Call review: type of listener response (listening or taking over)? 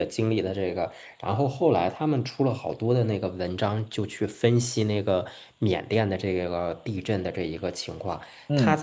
listening